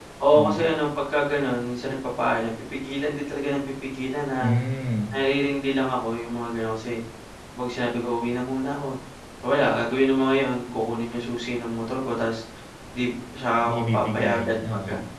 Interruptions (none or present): present